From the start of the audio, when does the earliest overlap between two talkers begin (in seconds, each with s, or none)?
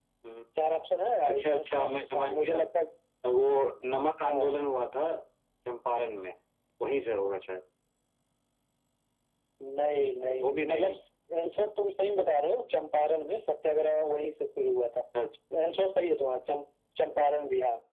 1.2 s